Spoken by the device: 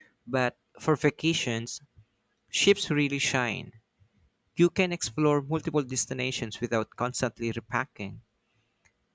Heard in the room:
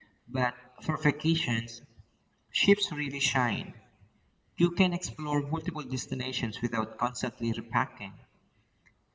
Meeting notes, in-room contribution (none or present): none